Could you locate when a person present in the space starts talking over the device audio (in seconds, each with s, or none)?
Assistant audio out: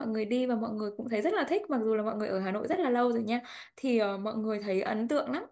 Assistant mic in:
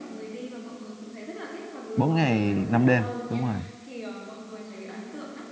1.9 s